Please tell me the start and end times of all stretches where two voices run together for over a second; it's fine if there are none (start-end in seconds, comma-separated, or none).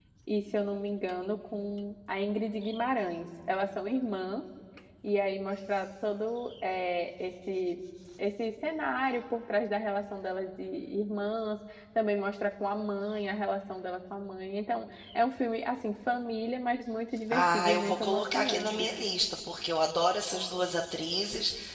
17.3-18.9